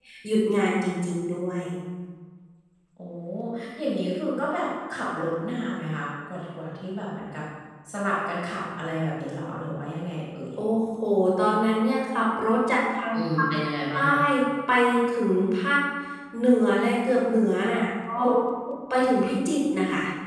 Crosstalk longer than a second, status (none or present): none